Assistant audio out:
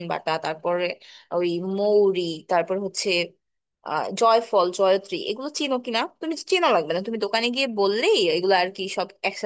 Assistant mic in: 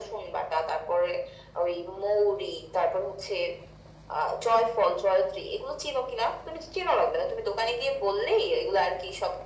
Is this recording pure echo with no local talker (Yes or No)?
Yes